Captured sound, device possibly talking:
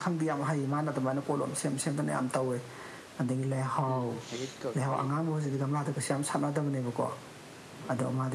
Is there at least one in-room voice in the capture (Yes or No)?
Yes